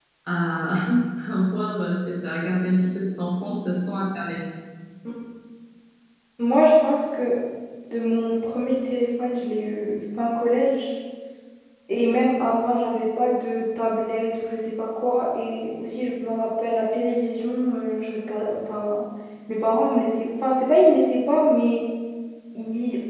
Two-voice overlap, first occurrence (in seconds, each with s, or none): none